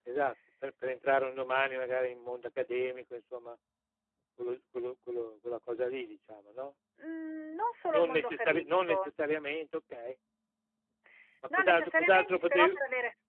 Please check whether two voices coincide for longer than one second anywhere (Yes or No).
Yes